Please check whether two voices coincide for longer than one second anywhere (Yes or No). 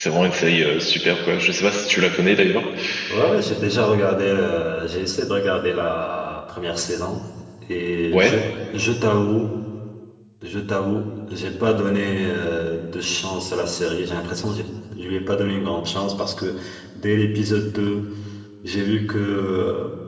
No